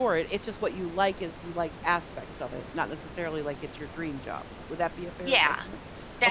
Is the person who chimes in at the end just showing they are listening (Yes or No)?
No